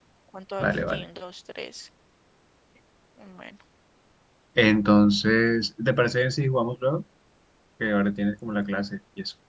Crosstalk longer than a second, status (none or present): none